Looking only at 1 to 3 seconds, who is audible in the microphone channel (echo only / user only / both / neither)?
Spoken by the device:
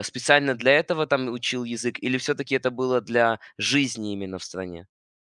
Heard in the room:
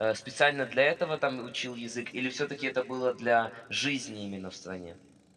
echo only